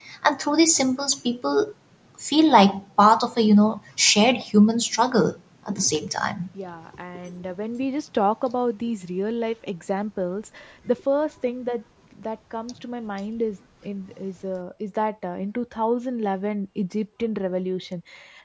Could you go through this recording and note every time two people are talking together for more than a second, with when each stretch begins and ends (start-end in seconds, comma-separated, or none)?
none